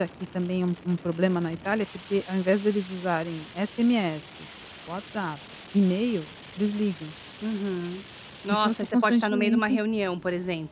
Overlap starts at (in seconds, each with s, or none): 8.5 s